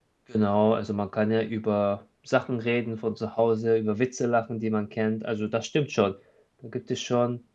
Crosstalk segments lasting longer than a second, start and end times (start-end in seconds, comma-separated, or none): none